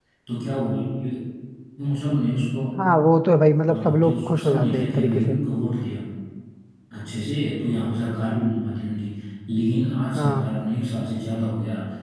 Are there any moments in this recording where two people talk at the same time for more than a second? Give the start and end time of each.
3.7-5.4

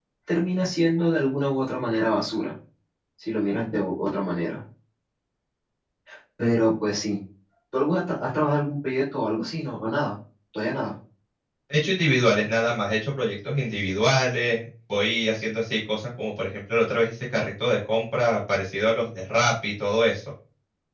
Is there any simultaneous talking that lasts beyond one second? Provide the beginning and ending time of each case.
none

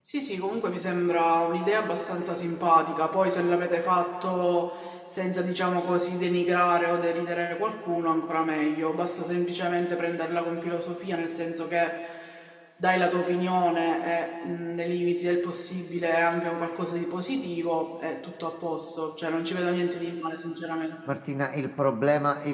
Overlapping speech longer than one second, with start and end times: none

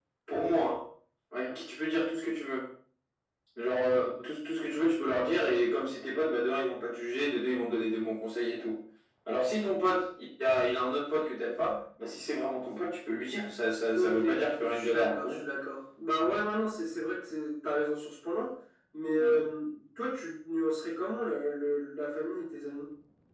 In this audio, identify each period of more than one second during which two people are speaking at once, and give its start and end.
13.9-15.2

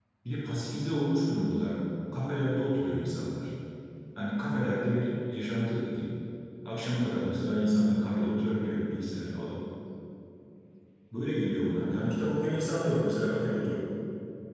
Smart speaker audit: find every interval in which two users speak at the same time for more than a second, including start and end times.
none

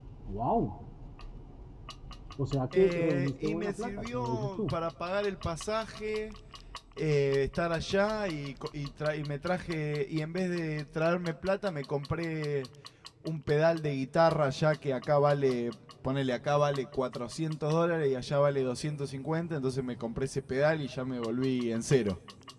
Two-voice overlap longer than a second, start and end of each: 2.7-4.7

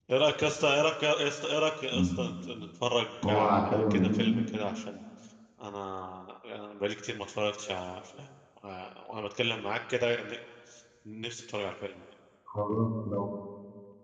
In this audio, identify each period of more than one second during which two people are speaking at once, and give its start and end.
3.2-4.5

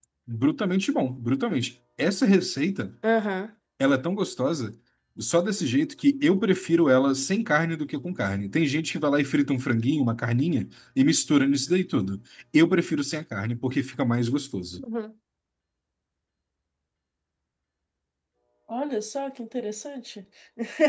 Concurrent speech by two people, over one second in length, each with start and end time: none

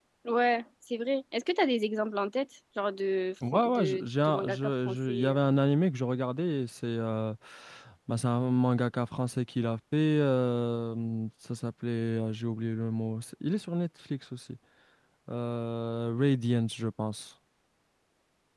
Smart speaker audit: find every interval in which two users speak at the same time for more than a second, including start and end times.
3.5-5.4

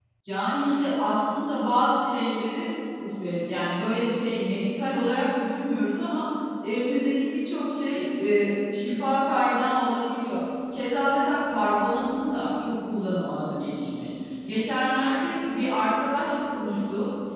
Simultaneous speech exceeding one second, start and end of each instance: none

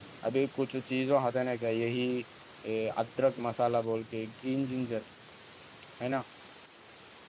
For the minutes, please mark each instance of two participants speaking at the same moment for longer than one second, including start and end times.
none

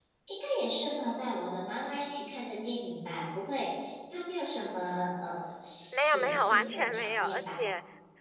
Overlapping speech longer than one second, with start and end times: 5.9-7.6

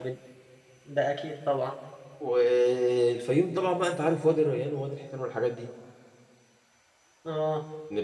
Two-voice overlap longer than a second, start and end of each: none

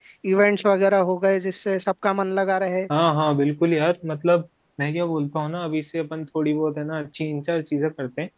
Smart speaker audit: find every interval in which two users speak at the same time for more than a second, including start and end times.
none

